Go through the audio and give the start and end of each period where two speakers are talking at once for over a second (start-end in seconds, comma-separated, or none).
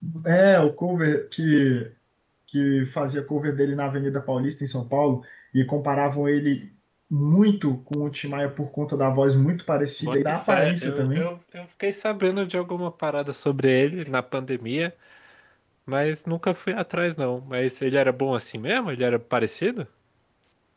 10.0-11.3